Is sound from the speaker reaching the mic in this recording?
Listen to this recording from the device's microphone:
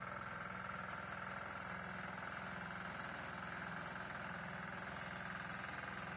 No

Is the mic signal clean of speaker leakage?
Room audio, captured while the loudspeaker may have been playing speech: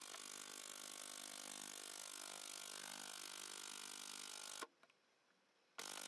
Yes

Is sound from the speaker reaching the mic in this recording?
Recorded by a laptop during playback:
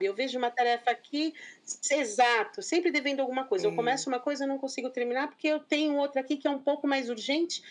Yes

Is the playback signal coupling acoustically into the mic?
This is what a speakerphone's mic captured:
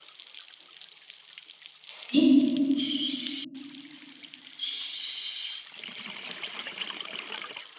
No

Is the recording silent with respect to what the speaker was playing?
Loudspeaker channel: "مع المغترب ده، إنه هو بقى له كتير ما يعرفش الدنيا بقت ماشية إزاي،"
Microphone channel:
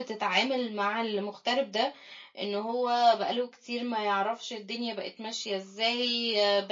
No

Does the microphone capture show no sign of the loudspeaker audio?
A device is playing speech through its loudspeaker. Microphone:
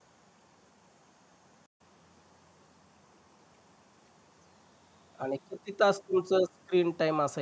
Yes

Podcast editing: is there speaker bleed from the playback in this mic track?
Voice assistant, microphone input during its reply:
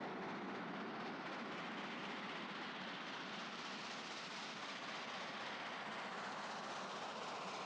No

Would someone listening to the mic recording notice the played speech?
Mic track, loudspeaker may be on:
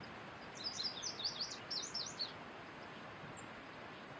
No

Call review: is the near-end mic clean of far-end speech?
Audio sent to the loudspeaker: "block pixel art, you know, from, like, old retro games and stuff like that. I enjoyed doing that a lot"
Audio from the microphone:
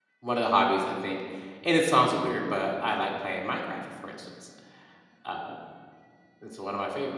Yes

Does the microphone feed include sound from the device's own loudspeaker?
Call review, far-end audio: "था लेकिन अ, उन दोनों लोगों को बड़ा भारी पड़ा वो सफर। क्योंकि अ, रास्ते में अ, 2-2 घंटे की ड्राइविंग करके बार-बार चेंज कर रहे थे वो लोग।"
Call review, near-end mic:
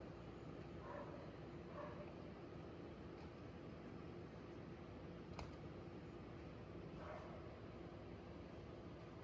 No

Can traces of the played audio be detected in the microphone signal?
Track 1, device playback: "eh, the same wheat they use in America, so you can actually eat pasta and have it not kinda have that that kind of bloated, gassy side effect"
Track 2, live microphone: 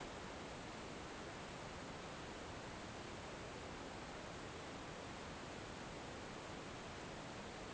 No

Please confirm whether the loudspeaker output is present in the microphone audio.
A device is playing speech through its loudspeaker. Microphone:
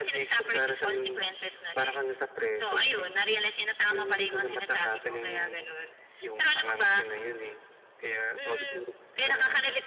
Yes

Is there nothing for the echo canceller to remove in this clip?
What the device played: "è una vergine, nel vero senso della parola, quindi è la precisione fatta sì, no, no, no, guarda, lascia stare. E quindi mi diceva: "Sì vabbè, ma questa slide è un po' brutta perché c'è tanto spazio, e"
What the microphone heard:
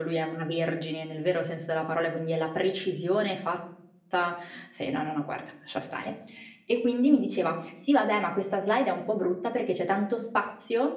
No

